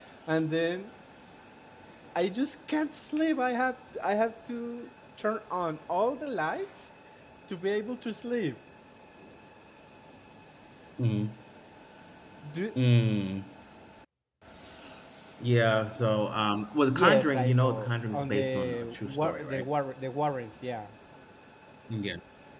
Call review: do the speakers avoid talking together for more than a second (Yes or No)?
No